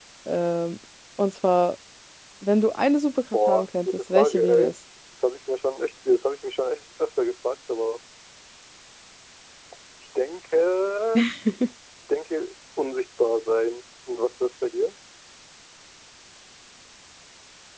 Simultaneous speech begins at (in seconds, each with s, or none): 3.3 s